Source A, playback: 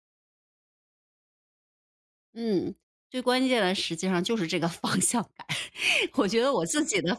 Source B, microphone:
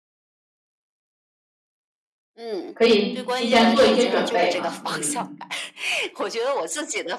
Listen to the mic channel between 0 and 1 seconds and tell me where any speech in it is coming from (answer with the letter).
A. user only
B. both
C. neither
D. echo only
C